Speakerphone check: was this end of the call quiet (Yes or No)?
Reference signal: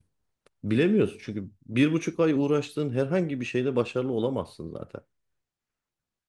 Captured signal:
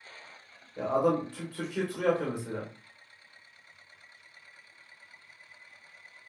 No